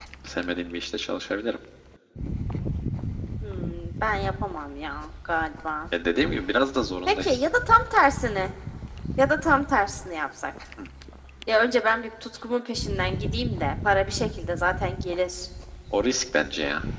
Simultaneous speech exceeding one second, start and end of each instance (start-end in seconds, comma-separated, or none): none